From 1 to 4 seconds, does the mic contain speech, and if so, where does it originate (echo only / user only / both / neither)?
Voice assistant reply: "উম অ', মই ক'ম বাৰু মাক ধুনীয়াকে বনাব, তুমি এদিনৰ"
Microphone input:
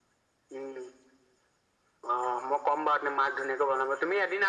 echo only